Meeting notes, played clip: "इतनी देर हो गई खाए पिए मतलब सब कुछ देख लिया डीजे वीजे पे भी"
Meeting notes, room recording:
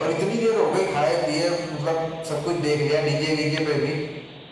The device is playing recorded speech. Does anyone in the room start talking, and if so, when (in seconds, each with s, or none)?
none